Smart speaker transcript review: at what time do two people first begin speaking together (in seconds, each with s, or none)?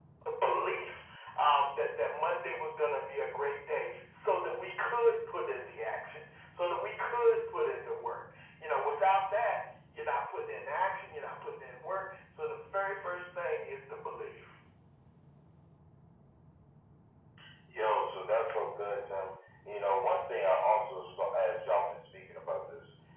none